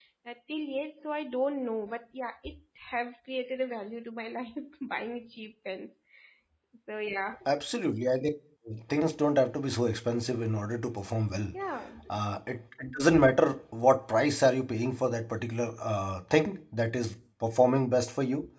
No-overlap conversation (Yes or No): Yes